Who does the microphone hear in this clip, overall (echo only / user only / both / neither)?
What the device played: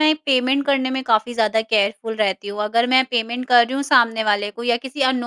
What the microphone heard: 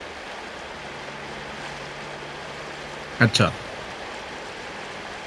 user only